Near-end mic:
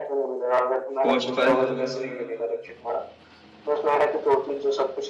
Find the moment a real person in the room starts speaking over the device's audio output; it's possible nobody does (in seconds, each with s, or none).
1.0 s